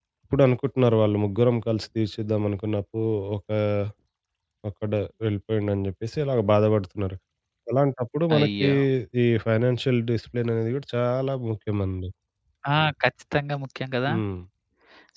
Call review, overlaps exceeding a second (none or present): none